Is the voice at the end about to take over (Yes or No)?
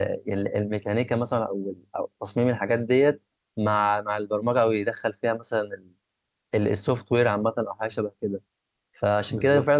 No